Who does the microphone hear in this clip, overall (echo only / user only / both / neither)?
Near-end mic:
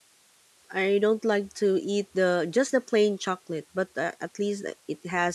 user only